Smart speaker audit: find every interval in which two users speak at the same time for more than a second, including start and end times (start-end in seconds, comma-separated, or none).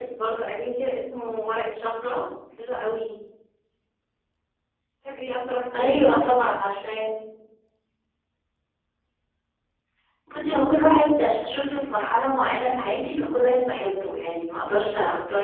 none